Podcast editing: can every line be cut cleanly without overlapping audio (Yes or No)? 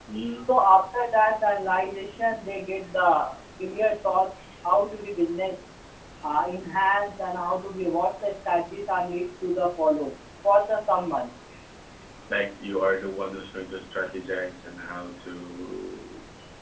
Yes